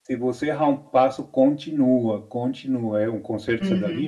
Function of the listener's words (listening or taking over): taking over